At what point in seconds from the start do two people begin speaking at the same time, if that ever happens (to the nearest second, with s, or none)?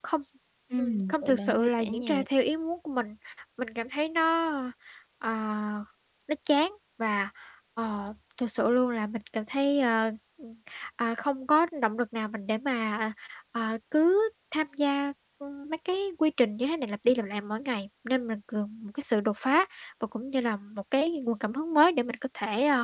1 s